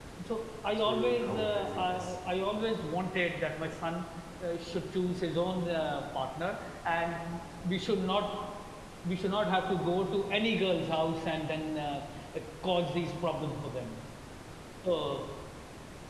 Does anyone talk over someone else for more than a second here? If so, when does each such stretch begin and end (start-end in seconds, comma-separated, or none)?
0.8-2.1